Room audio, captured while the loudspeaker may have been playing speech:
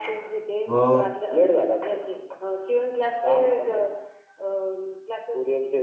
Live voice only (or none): हो